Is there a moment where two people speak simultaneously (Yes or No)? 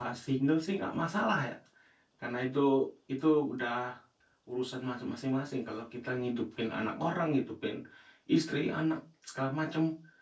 No